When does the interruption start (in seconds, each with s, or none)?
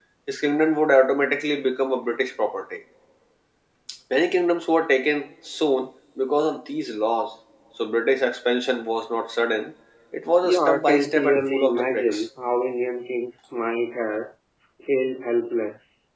10.4 s